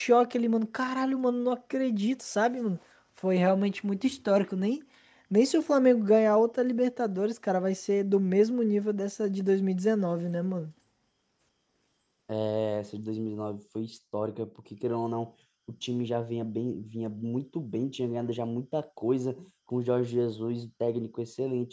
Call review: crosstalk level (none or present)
none